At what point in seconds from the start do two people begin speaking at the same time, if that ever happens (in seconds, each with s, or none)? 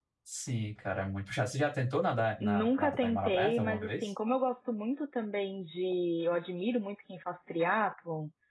2.4 s